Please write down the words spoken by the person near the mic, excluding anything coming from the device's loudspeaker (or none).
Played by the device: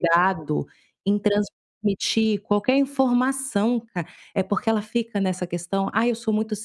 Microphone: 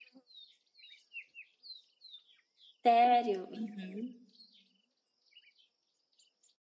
Sério? Uhum.